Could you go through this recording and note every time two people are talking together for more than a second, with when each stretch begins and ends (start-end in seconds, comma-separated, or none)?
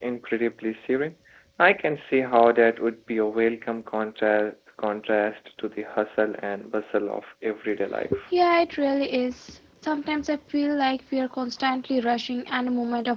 none